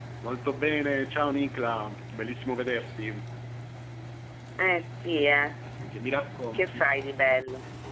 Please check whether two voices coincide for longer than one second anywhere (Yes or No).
No